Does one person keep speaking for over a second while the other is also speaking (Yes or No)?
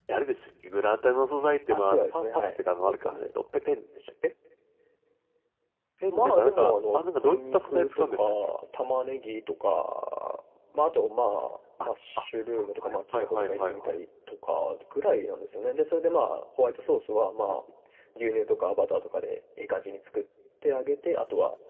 Yes